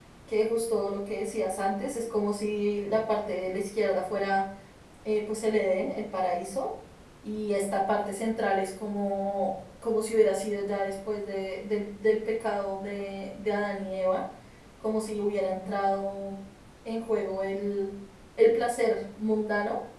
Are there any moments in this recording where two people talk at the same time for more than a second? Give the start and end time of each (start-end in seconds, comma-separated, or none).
none